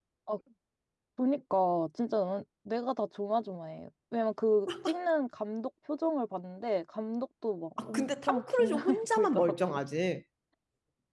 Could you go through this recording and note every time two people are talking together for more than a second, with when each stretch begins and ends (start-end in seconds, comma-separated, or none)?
7.8-9.8